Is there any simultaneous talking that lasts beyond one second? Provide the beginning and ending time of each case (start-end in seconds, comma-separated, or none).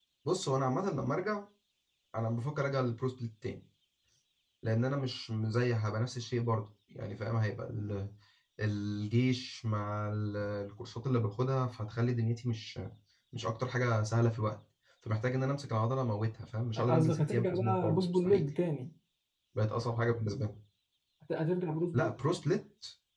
16.9-18.5